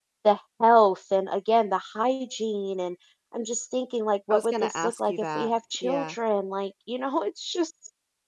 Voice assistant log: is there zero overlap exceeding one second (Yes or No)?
No